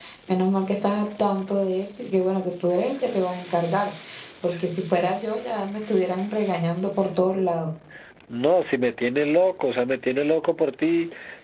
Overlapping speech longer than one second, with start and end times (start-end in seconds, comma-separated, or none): none